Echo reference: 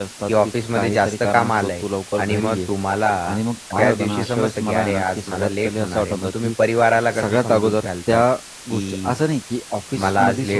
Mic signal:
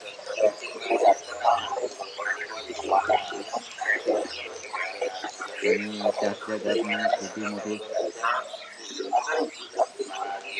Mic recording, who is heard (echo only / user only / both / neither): both